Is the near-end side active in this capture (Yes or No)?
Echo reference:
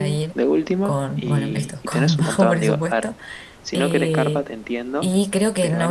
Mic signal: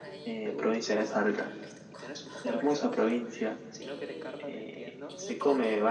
Yes